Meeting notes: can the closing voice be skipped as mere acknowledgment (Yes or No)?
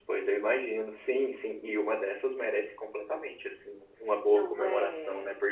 Yes